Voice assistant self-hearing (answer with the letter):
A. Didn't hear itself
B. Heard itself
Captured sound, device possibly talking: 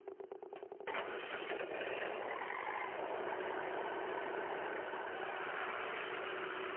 A